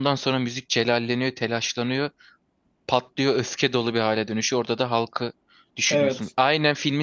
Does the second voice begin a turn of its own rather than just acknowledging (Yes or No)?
No